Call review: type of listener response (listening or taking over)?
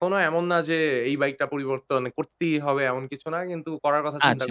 taking over